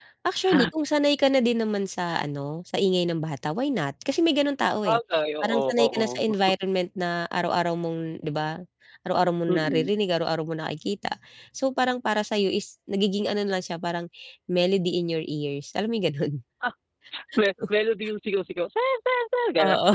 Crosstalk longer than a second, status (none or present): present